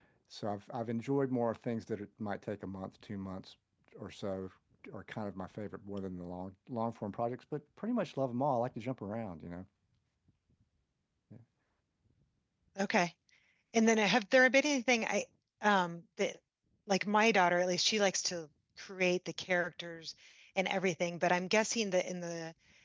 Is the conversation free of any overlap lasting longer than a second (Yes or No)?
Yes